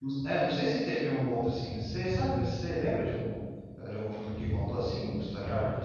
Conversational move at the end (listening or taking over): taking over